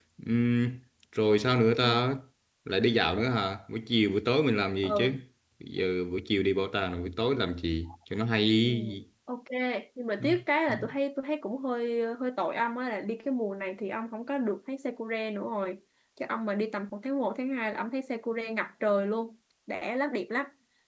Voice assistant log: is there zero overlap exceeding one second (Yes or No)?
Yes